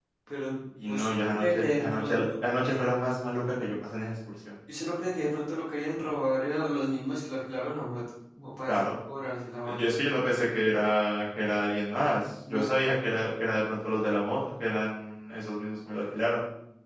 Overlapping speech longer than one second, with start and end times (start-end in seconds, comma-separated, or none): 0.9-2.2